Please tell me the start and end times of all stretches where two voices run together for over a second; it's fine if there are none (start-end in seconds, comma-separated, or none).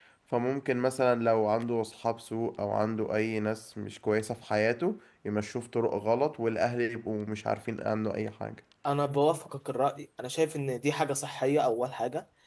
none